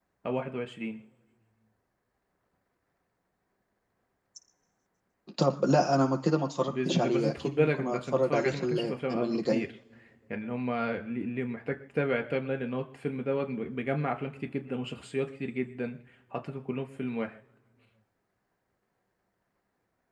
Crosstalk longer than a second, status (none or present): present